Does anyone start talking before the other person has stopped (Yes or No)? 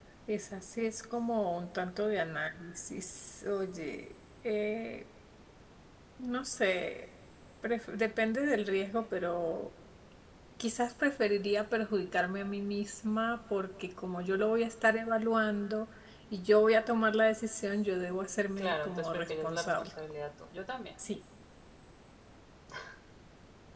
Yes